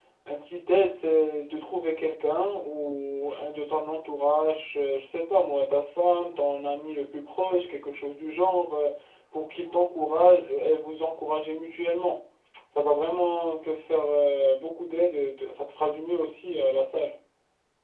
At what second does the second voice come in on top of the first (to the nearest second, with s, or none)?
none